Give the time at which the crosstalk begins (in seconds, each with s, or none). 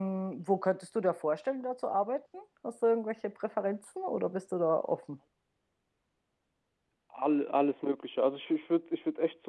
none